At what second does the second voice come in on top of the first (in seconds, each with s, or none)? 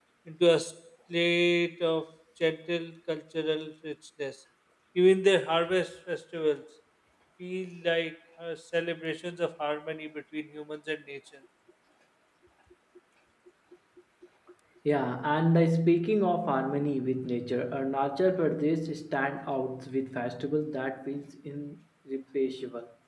none